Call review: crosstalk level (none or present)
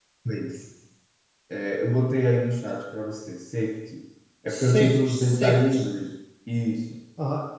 present